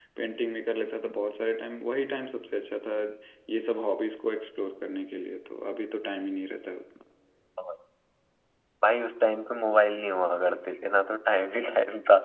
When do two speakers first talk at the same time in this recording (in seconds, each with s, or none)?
none